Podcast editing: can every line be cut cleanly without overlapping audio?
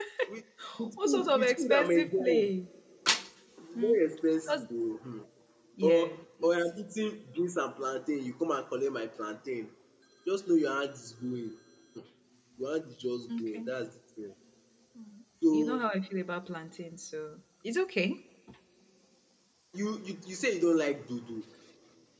No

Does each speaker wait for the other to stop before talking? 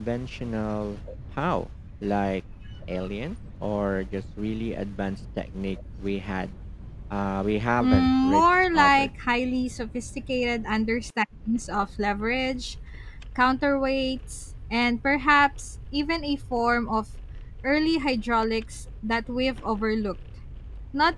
No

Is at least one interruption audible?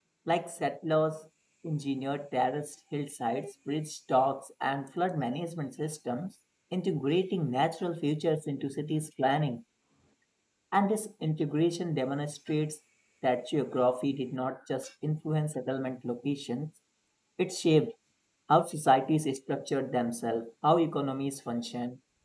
No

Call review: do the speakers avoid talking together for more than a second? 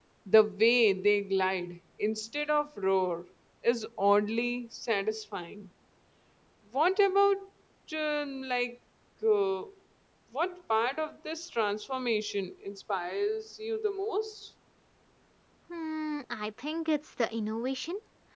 Yes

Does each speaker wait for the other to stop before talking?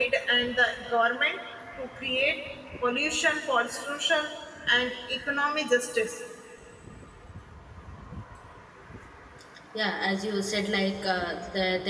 Yes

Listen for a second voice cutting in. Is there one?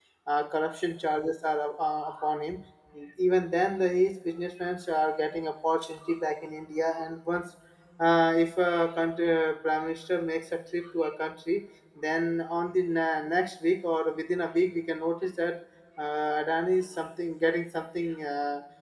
No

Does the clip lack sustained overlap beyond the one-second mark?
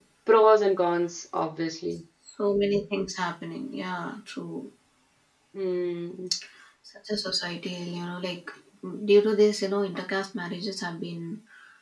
Yes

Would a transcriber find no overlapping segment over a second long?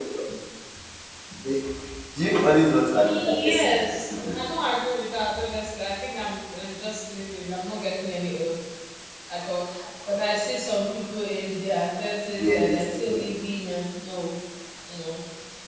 No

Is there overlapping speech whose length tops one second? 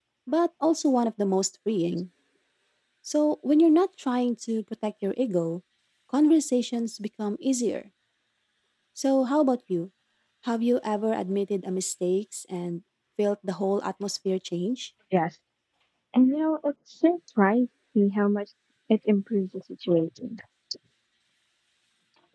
No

